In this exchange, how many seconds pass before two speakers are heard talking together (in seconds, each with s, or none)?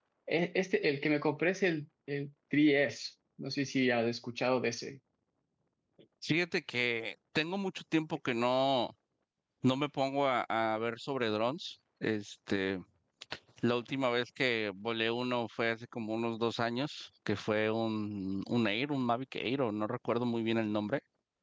none